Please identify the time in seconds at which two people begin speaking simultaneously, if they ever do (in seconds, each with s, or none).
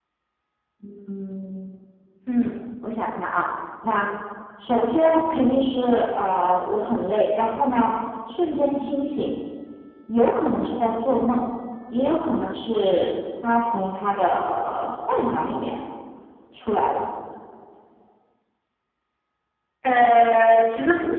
none